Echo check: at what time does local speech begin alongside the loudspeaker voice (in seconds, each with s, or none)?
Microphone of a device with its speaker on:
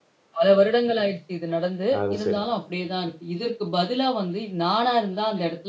2.0 s